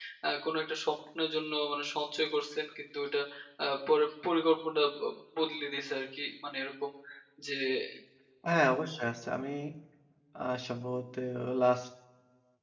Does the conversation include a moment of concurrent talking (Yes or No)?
No